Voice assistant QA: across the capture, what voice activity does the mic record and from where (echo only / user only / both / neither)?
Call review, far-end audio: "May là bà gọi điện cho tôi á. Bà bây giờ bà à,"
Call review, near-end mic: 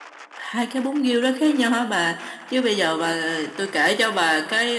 user only